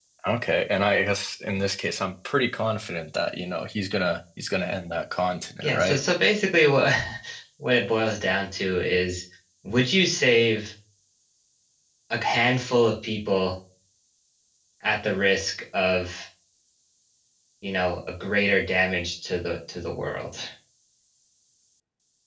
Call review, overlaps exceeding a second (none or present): none